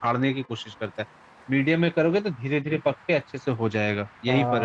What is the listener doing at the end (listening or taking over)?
taking over